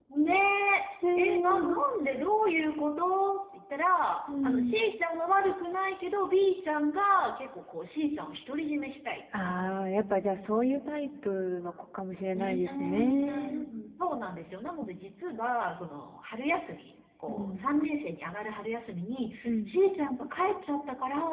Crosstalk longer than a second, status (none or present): present